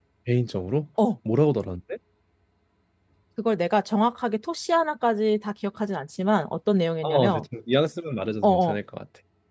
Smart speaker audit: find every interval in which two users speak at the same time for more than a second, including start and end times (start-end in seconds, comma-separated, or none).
none